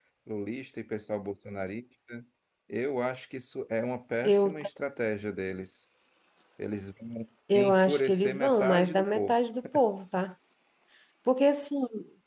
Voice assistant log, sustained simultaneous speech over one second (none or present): present